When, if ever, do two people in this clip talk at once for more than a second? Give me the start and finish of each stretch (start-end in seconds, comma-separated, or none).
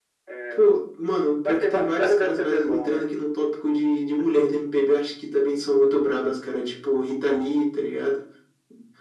1.4-3.1